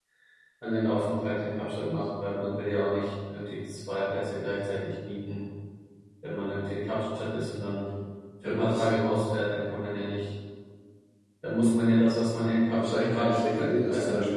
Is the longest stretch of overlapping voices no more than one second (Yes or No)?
No